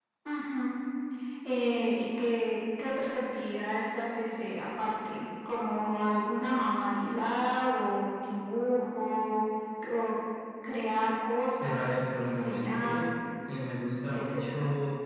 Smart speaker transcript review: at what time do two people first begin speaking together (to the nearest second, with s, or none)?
12 s